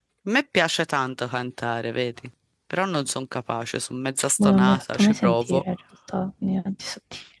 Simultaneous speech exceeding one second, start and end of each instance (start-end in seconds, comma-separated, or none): 4.4-5.6